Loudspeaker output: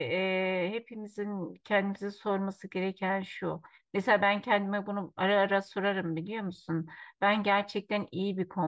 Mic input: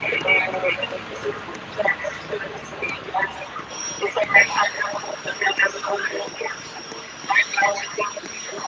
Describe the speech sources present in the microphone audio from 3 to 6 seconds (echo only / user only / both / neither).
echo only